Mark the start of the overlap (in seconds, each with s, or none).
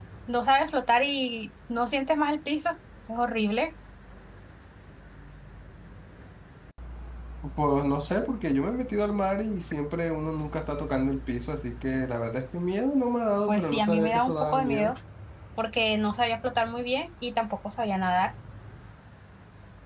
13.5 s